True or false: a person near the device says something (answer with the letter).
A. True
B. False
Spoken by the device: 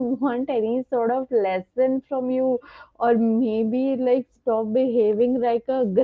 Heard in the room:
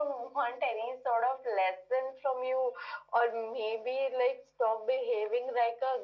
B